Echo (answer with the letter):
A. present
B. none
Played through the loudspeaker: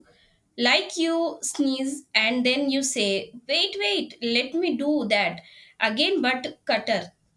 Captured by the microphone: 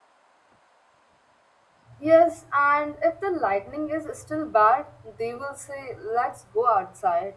B